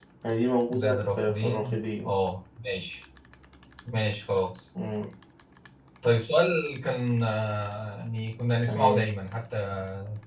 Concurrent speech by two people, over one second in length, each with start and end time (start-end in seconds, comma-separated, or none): 0.7-2.1